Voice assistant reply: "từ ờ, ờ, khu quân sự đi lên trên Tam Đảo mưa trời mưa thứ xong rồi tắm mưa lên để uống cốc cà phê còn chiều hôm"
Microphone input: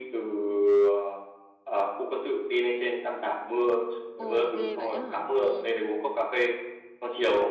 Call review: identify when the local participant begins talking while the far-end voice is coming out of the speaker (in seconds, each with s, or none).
4.2 s